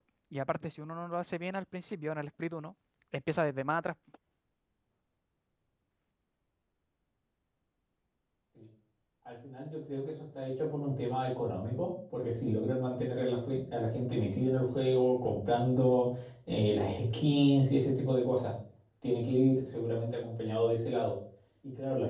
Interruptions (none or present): none